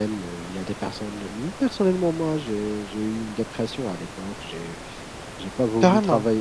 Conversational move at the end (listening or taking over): listening